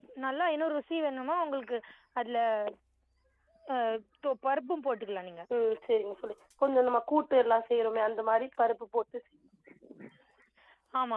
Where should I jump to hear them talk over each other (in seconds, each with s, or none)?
none